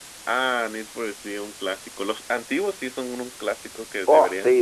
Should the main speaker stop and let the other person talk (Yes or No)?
Yes